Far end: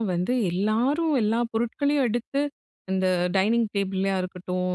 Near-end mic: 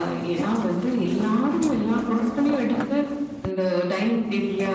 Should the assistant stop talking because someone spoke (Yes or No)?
No